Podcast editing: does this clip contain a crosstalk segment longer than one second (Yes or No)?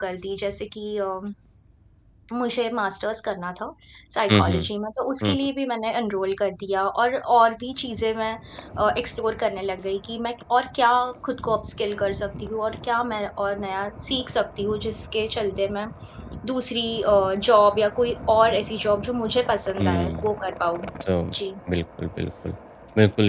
No